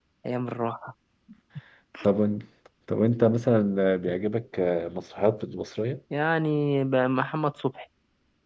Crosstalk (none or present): none